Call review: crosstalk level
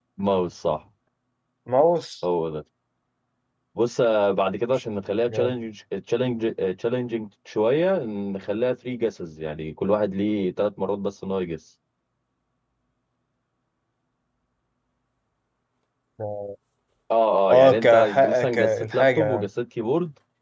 present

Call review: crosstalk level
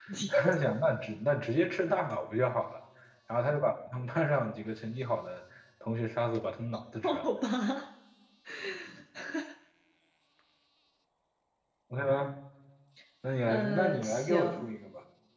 present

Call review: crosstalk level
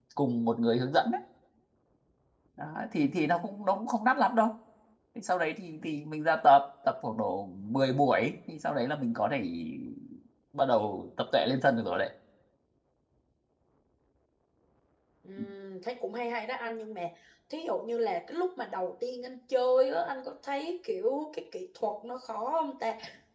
none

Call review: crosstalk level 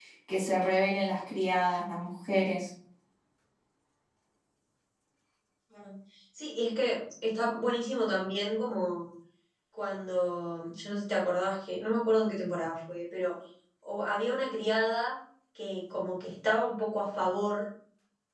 none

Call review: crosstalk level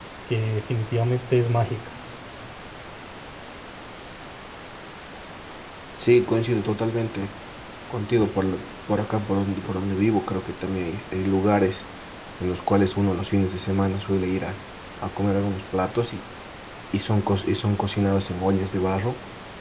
none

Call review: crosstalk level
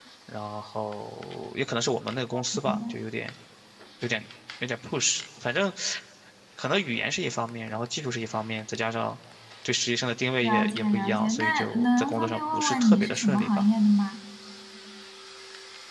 present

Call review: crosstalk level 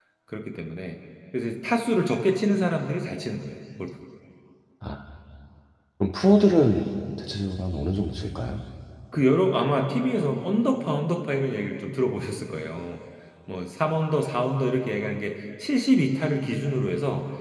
none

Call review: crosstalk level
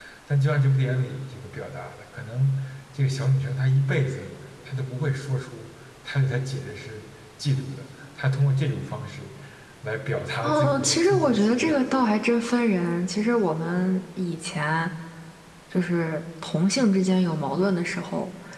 present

